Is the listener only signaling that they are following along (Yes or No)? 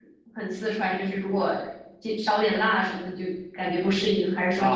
No